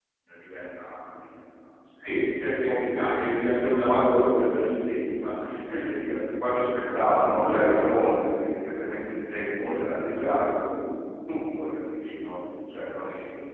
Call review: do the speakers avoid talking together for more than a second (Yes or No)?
No